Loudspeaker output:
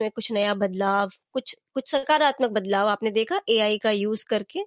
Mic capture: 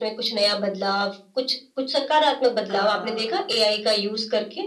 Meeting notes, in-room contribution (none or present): present